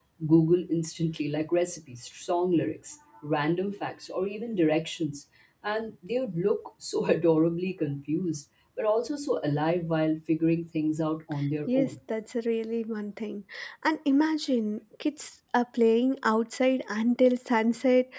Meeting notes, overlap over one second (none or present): none